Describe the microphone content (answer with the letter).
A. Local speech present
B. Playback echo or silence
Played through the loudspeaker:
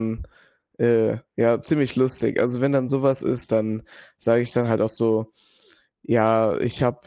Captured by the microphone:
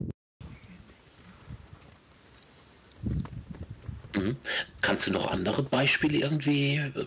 A